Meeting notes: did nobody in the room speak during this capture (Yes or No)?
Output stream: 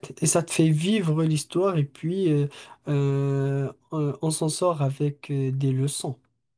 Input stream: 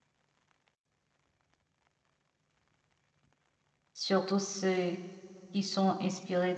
No